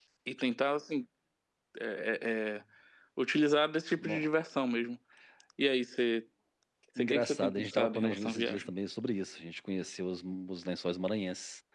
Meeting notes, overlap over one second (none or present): present